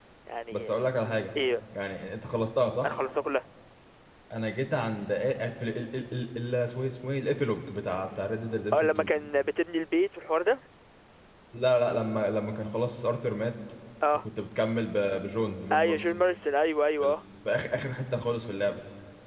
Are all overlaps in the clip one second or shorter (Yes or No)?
Yes